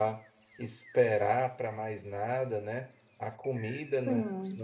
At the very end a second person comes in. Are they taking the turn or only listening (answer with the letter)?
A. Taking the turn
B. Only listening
B